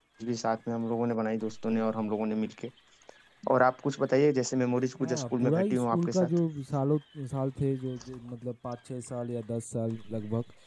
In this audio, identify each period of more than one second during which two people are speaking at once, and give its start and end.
5.0-6.3

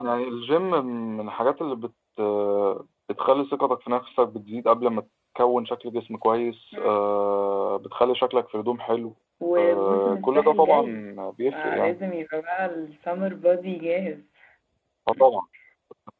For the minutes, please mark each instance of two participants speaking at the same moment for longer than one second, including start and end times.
9.6-10.8

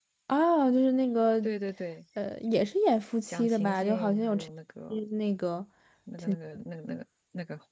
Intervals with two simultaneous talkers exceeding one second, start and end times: 3.3-4.5

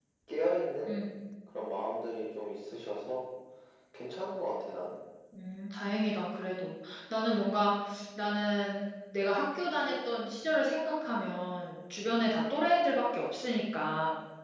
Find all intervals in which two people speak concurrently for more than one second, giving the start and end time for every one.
none

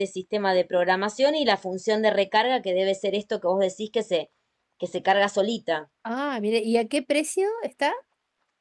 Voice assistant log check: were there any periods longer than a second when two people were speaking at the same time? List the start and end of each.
none

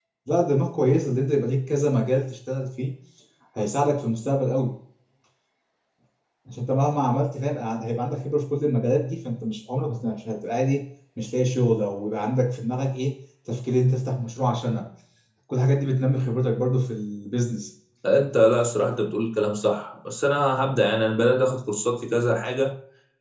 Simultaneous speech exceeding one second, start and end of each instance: none

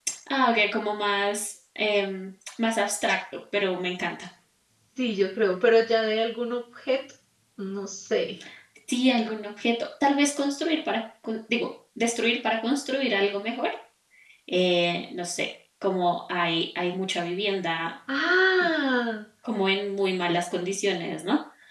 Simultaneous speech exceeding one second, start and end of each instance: none

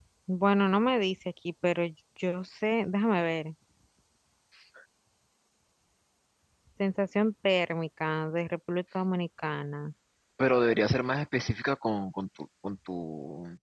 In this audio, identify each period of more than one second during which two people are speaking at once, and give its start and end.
none

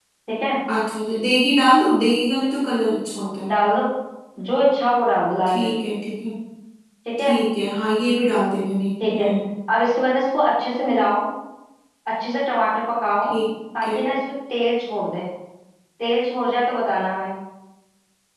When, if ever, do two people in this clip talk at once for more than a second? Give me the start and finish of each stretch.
none

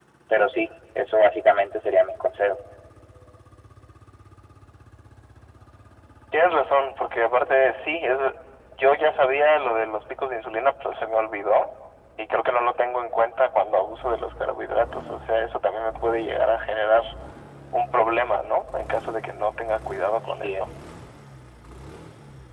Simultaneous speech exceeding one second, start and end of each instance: none

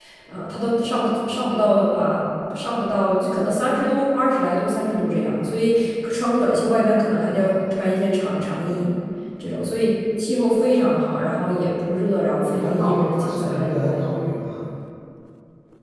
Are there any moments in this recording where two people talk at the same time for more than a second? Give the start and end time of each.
12.5-14.0

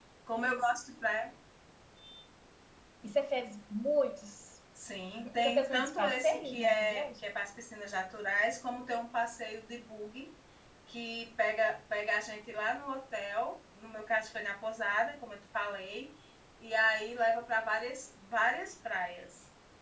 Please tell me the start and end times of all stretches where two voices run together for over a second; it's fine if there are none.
5.4-7.3

